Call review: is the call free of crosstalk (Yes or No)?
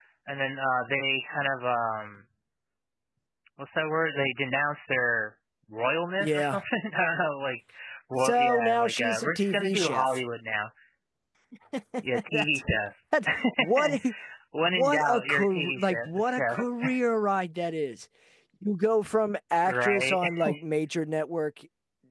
No